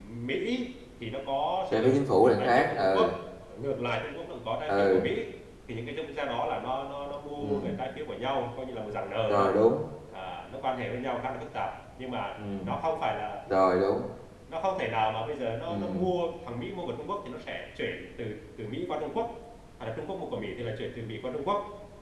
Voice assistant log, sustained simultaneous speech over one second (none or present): present